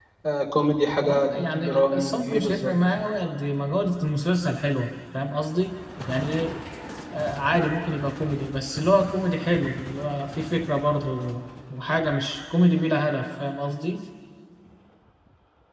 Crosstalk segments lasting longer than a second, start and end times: 1.0-2.7

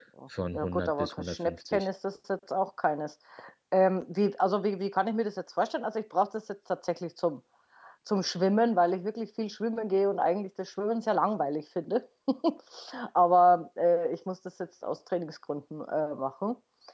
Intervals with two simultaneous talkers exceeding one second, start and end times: 0.5-1.9

